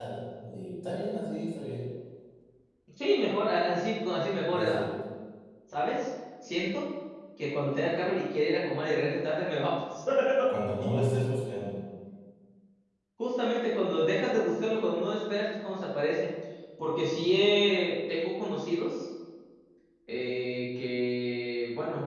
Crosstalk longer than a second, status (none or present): none